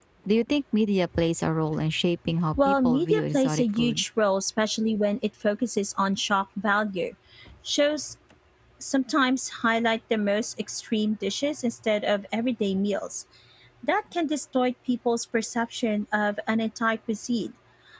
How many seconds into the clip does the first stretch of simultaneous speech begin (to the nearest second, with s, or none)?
3 s